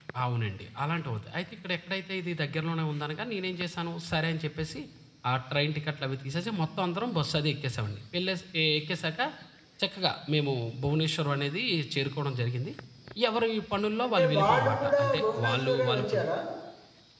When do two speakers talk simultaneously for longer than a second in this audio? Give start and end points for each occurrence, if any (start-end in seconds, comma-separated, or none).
14.0-16.2